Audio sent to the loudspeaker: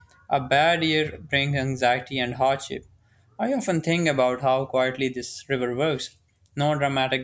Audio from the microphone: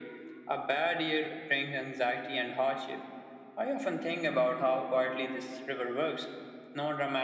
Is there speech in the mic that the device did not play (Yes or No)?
No